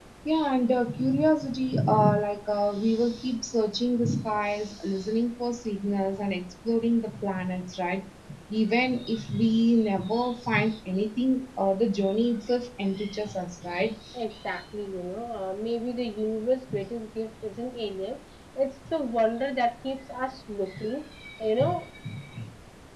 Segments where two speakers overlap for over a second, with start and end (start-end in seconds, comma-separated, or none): none